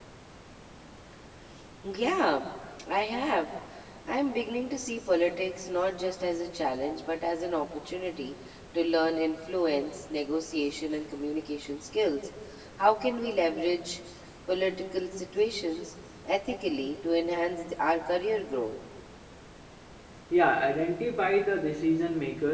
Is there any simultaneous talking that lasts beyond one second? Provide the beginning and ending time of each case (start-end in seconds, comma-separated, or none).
none